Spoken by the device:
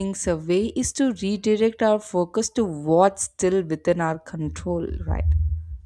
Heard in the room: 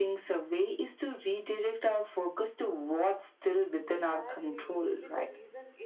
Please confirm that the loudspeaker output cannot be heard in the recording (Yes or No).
No